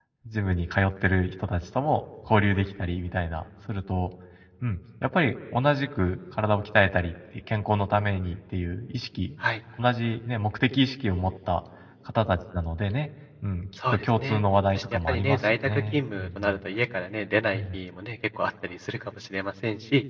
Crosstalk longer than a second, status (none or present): present